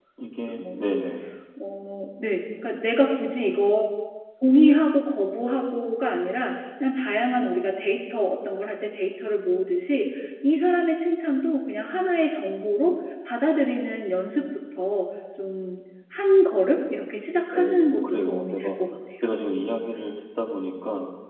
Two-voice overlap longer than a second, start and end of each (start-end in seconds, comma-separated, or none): 17.5-18.8